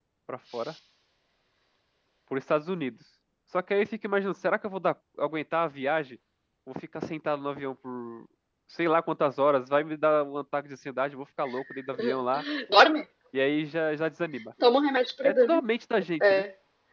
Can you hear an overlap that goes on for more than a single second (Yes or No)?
No